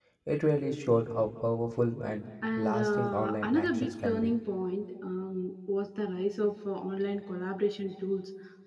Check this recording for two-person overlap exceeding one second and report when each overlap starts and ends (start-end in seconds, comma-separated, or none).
2.6-4.3